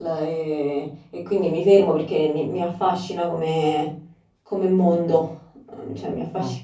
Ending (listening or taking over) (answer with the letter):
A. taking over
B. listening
B